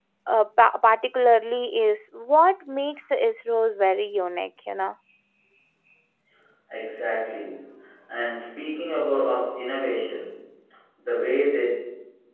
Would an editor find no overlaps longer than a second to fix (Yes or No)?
Yes